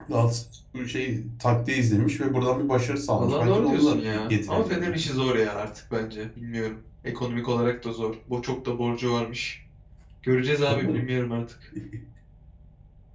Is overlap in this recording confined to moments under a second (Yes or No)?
No